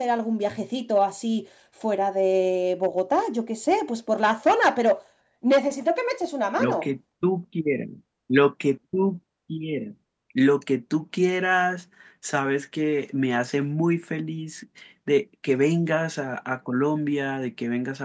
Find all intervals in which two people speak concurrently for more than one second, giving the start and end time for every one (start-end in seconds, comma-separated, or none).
none